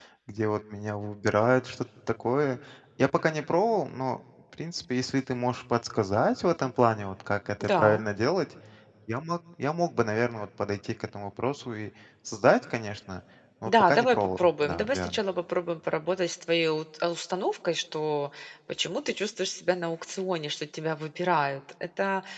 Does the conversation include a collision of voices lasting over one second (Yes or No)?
Yes